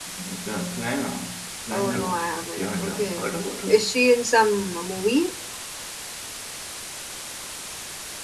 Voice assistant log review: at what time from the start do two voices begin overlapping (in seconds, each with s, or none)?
1.7 s